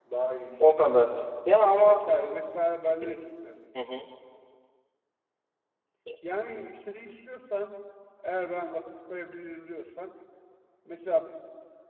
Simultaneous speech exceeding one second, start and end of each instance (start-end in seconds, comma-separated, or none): none